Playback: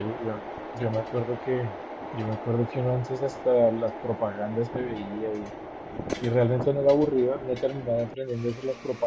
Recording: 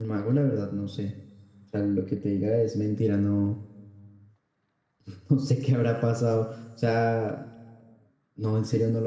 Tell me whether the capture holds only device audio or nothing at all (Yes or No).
No